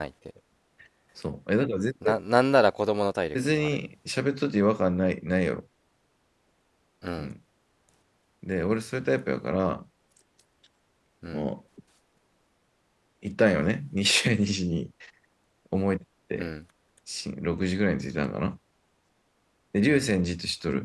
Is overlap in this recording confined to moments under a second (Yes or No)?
Yes